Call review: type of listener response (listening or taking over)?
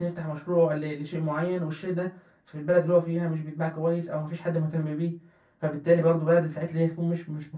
listening